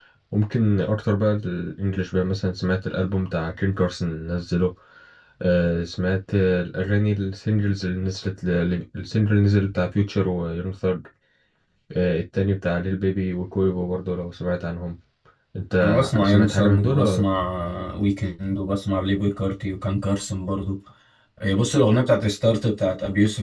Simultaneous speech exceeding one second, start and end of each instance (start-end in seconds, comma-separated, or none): 15.8-17.2